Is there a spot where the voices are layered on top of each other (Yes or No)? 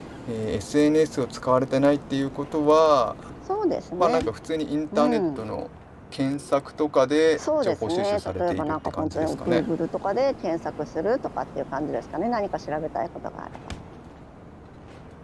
Yes